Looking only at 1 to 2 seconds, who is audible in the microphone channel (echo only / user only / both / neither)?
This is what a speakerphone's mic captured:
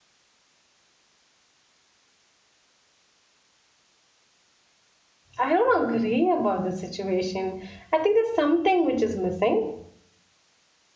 neither